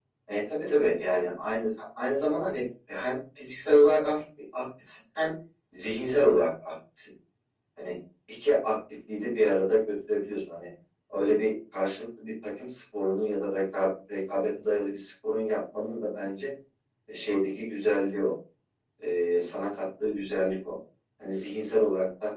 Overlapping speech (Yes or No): No